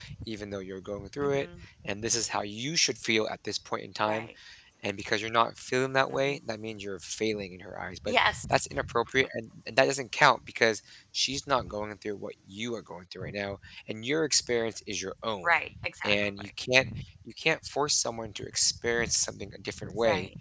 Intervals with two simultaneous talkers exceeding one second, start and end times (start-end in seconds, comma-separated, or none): none